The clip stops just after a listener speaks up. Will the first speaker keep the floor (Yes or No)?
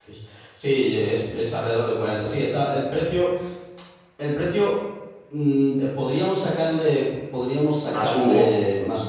Yes